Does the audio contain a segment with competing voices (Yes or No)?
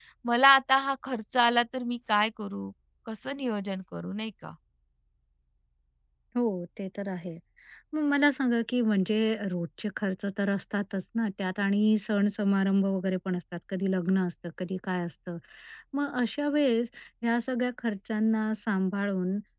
No